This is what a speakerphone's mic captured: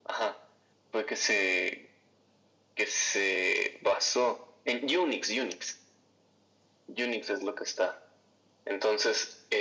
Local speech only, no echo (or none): none